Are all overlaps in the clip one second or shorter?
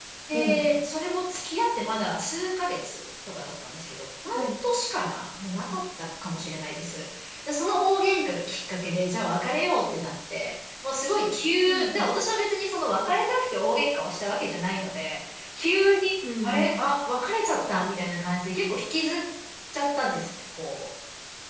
Yes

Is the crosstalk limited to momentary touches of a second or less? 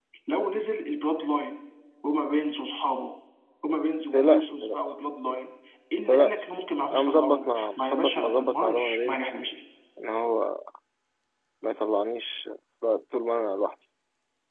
No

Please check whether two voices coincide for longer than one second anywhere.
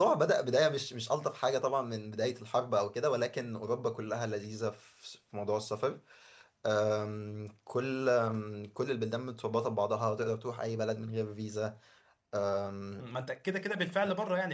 No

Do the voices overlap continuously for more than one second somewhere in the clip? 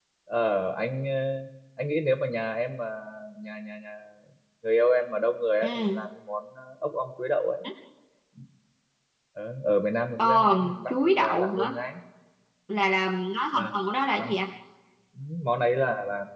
Yes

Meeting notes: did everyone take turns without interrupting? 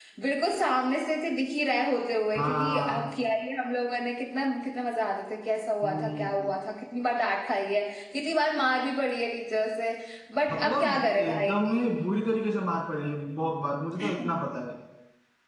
No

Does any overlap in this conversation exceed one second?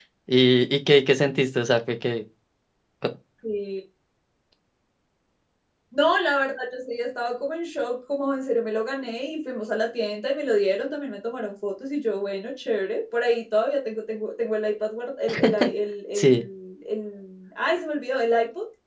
No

